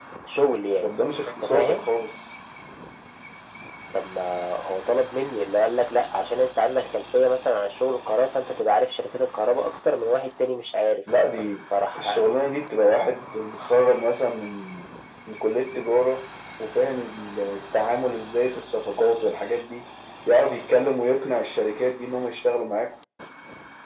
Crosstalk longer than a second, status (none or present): none